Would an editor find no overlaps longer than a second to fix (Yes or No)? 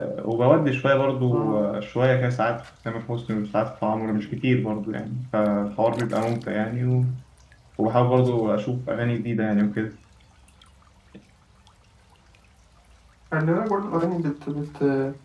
Yes